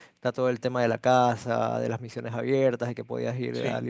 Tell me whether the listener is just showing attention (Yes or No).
Yes